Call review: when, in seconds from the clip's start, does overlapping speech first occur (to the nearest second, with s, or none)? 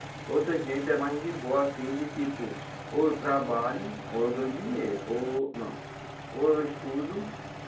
none